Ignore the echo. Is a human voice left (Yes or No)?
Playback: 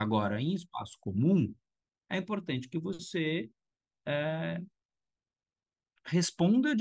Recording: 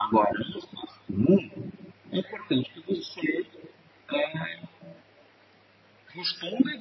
No